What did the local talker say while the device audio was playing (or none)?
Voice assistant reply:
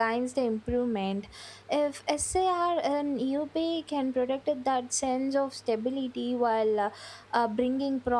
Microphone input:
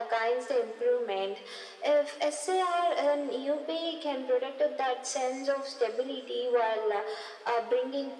none